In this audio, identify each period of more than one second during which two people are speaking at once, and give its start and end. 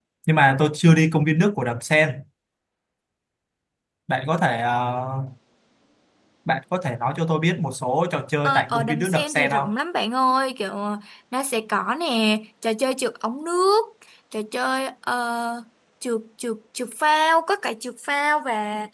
8.4-9.7

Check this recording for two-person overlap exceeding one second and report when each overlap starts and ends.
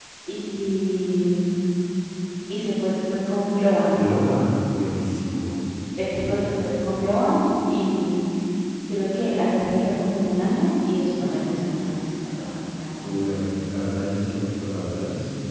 none

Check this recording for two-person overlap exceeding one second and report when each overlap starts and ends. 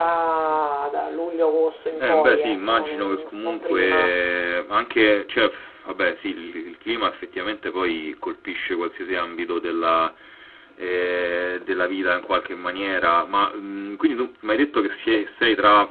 2.0-4.1

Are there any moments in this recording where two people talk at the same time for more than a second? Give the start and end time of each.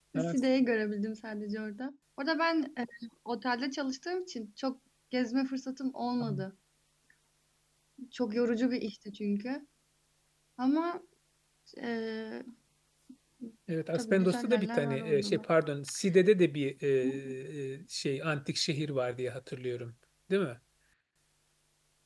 14.0-15.4

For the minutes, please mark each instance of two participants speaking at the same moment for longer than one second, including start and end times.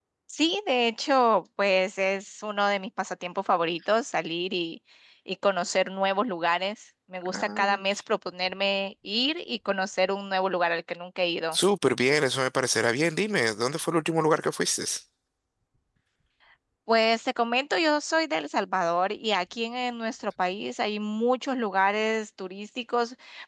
none

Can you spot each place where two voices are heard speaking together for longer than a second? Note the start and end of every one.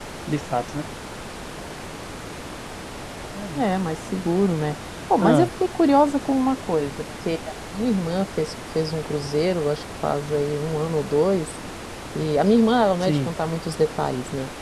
none

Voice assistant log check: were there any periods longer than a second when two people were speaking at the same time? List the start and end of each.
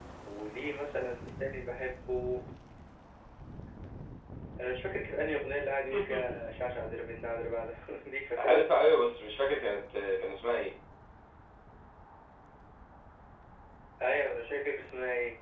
none

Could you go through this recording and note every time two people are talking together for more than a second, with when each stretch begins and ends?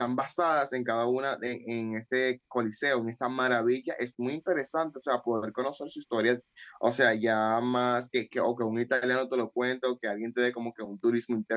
none

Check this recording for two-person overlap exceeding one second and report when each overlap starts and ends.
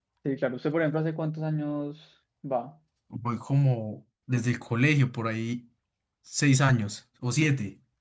none

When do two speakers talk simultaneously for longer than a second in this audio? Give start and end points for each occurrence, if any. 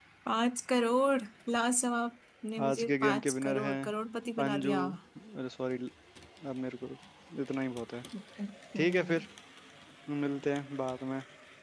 2.6-3.9

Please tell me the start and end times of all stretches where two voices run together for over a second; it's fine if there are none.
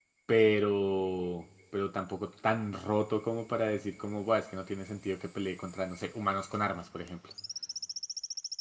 none

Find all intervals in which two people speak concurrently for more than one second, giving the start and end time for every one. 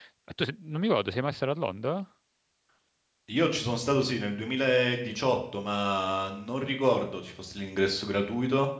none

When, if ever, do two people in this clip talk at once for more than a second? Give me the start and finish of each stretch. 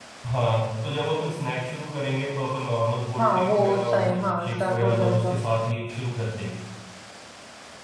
3.2-5.3

